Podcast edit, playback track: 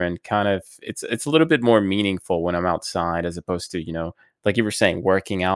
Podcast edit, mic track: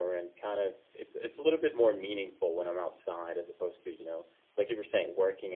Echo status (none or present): present